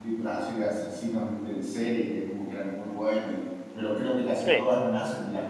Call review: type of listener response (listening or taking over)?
listening